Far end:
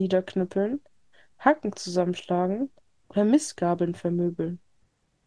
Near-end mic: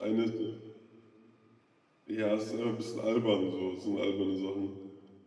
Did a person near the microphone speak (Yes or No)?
Yes